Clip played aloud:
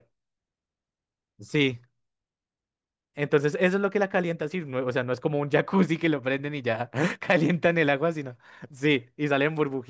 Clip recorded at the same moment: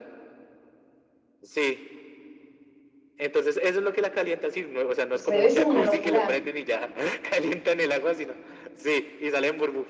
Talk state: both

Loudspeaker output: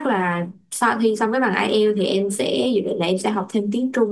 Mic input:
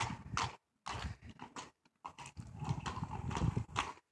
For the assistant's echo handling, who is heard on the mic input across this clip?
neither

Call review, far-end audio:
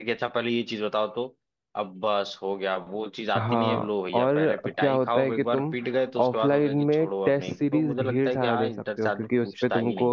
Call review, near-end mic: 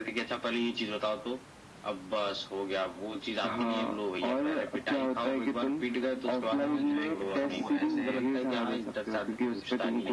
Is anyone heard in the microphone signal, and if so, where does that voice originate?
both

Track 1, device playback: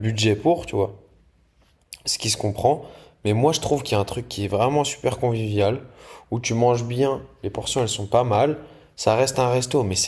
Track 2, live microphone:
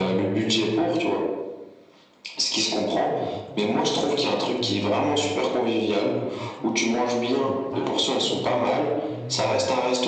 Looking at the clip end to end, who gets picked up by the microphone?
both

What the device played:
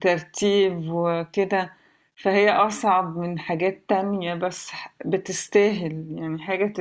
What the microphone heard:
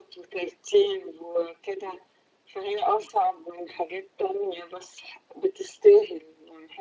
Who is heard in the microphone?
echo only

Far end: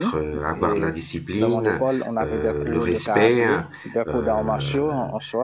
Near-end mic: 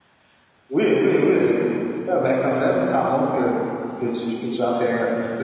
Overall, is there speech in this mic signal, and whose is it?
user only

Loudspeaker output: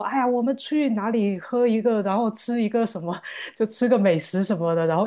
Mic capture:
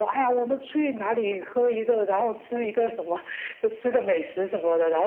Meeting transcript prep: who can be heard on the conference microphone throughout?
echo only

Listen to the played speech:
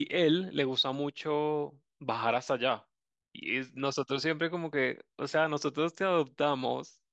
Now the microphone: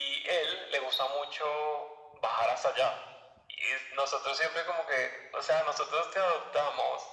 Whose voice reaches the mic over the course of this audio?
echo only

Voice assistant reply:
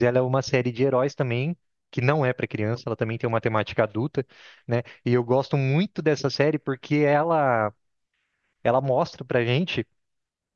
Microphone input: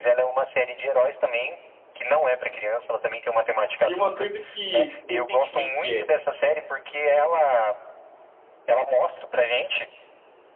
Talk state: both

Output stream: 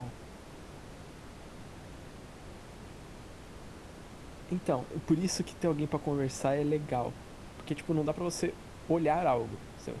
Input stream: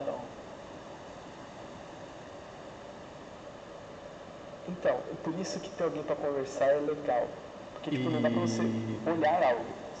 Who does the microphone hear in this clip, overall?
both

